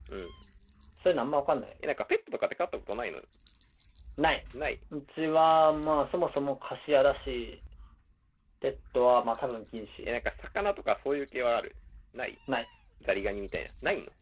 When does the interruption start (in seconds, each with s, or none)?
none